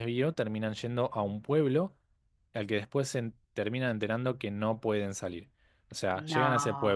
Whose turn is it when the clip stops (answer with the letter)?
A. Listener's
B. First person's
B